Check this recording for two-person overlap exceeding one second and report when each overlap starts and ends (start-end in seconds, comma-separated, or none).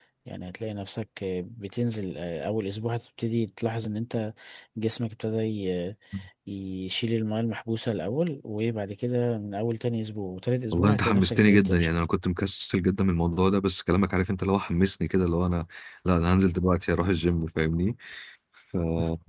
10.7-12.0